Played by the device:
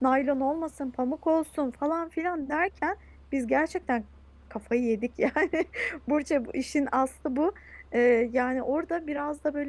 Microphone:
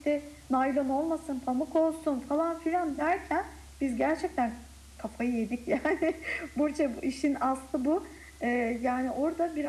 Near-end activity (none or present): none